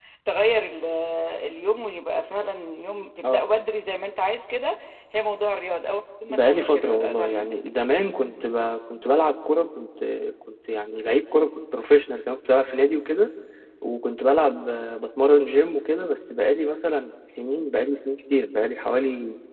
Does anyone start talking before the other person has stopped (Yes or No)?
Yes